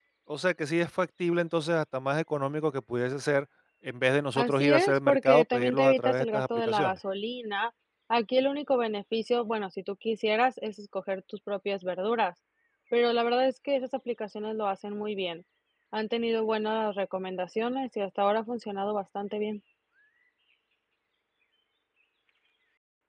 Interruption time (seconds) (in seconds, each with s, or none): 4.4 s